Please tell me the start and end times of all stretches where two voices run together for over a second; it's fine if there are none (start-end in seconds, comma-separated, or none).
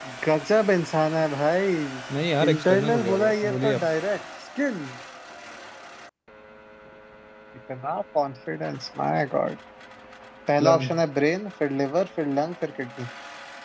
2.5-3.9